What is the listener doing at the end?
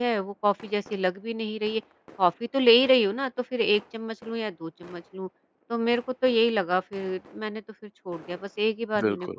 taking over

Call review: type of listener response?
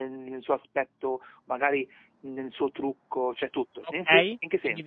taking over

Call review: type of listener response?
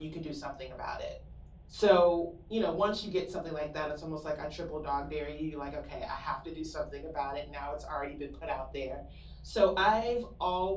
listening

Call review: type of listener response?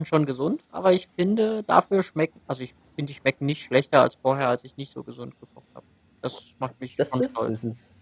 taking over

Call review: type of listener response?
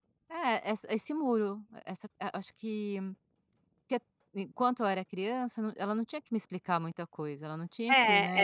taking over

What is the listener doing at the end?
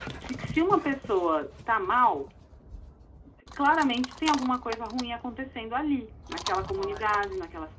listening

